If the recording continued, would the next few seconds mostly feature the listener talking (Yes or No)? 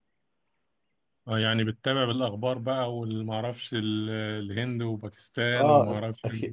Yes